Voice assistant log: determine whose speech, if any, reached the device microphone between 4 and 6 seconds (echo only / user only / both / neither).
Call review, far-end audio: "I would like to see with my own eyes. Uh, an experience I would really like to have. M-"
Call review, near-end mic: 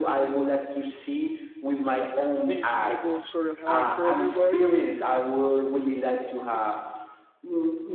both